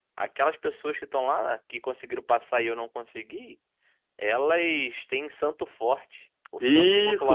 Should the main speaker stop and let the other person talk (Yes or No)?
Yes